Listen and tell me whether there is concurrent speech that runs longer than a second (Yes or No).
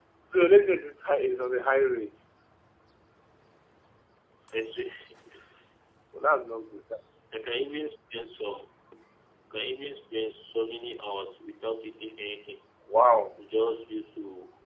No